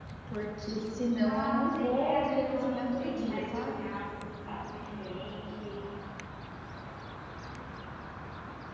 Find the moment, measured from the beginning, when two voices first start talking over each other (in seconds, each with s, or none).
1.2 s